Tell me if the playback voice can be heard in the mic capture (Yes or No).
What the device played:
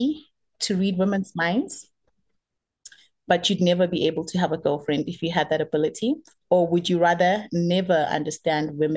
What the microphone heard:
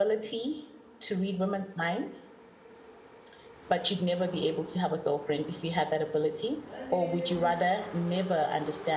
Yes